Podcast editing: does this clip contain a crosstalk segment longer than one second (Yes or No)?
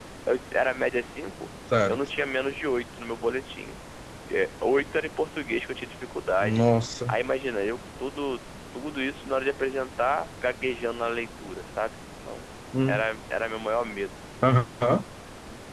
No